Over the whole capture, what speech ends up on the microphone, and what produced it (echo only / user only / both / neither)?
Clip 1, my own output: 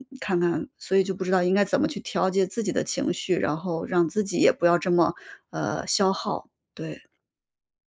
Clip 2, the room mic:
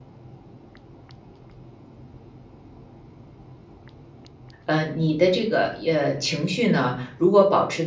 user only